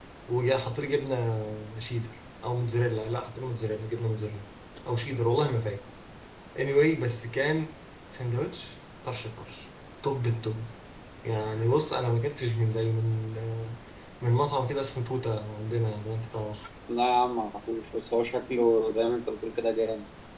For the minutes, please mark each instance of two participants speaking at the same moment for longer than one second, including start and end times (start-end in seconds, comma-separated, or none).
none